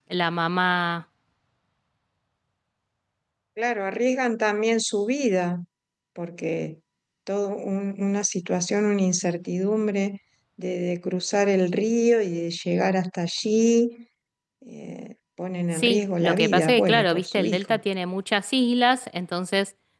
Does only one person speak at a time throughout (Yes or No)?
No